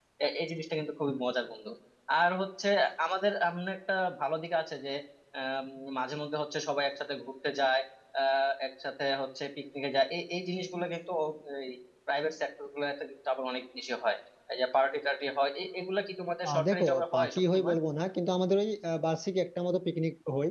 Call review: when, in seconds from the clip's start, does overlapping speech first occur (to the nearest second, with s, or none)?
16 s